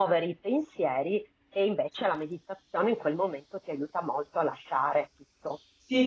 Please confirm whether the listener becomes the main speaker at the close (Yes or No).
Yes